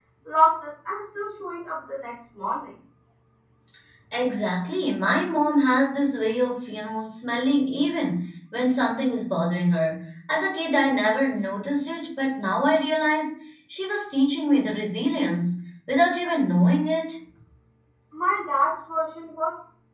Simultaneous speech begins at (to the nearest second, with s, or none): none